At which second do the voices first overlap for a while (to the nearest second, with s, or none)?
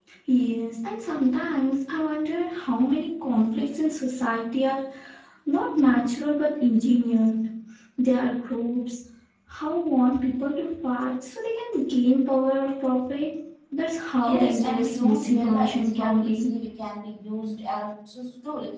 14 s